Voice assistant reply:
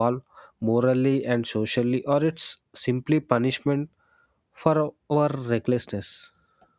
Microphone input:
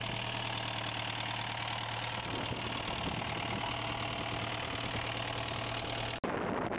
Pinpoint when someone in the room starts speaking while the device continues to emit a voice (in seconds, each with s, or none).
none